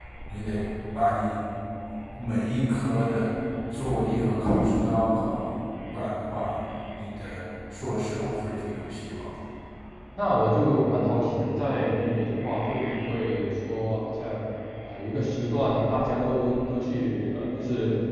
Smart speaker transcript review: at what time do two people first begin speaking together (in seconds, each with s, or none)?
none